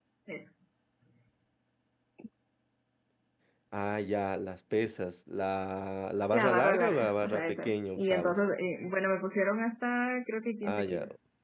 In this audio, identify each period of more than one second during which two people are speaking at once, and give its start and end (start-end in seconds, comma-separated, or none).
6.3-8.3